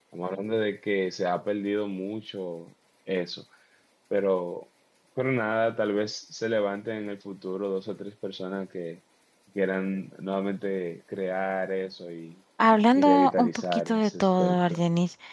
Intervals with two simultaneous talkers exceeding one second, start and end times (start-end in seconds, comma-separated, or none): 12.9-14.8